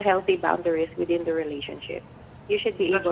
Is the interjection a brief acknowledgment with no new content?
Yes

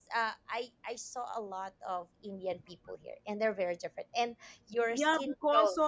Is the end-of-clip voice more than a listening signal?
Yes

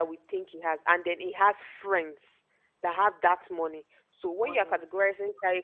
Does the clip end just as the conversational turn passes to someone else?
No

